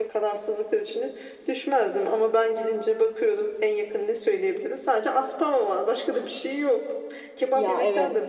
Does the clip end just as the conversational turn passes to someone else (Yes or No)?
No